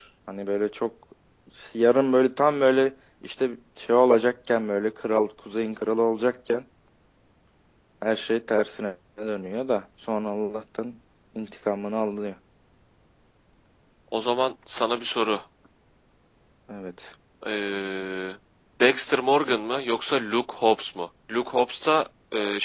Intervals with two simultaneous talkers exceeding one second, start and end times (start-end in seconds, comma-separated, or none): none